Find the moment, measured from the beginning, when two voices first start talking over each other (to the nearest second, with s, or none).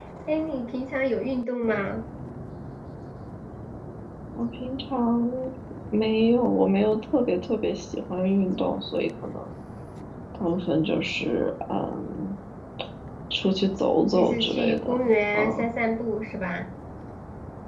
14 s